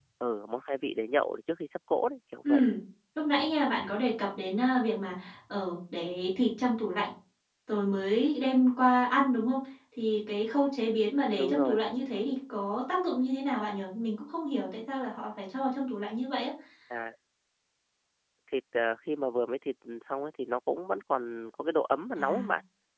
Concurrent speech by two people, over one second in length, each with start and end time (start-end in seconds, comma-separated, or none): none